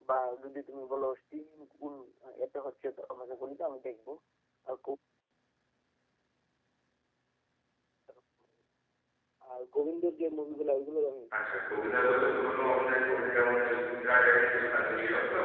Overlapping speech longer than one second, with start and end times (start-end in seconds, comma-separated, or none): 11.5-13.3